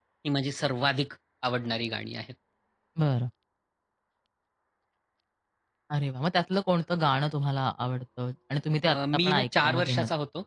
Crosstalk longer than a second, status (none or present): present